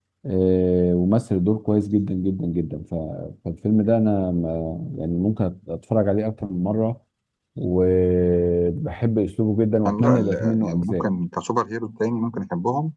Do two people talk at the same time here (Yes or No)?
Yes